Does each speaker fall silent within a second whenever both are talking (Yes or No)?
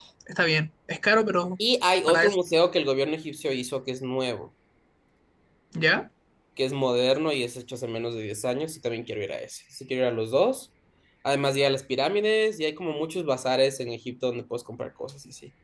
Yes